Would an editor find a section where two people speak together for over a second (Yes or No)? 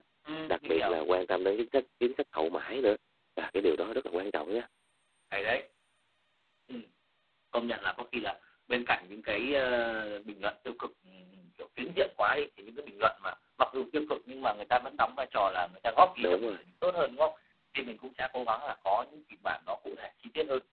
No